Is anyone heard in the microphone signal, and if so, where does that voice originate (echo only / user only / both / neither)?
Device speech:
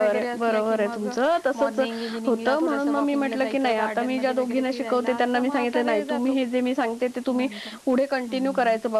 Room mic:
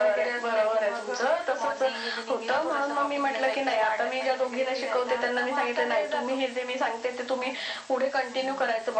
echo only